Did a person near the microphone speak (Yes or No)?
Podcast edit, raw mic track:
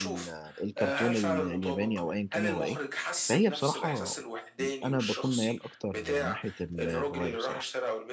Yes